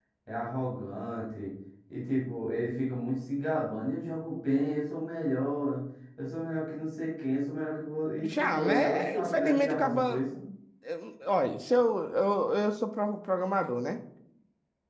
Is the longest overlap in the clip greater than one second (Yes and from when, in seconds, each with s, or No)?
Yes, from 8.2 s